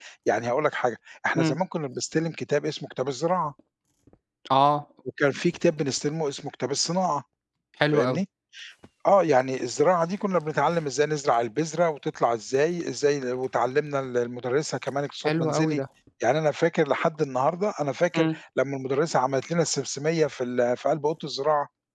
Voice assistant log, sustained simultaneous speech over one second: none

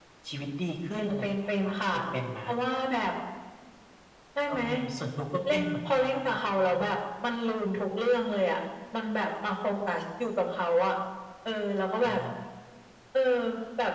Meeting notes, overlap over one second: present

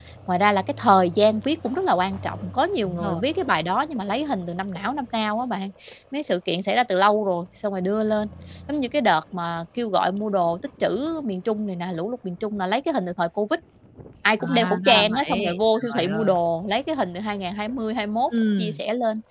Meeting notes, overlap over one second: present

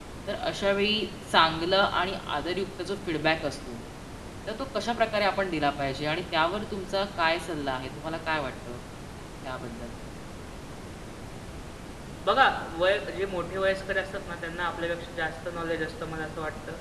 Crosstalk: none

